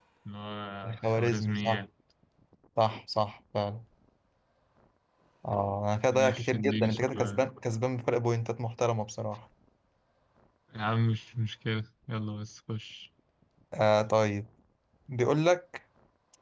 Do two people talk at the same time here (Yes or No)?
Yes